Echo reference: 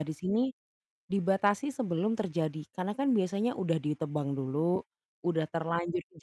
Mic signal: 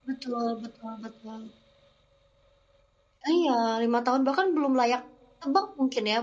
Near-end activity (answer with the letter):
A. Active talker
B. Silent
A